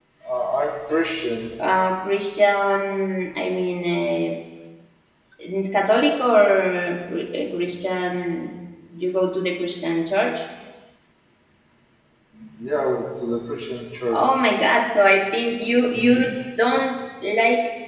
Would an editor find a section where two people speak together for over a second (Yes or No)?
No